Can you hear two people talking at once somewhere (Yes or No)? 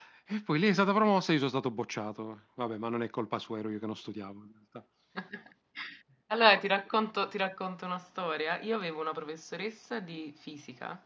No